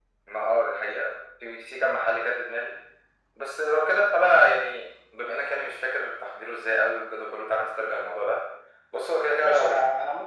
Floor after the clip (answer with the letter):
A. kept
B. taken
B